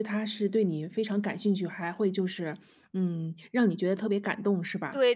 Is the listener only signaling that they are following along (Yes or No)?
No